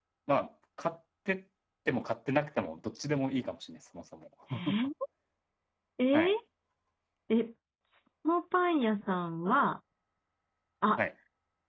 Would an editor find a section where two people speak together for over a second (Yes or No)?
No